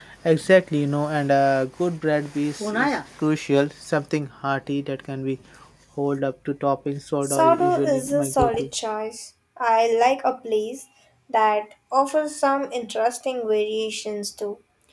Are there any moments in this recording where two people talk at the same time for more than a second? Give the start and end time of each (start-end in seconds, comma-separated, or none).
7.2-8.7